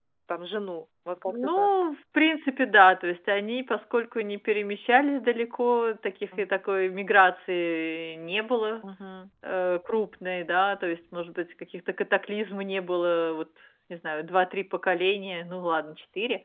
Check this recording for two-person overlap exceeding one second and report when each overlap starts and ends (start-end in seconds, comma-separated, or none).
none